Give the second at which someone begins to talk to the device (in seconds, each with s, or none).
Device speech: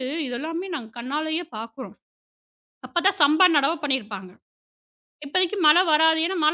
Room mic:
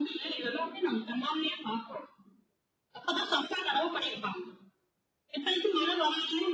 none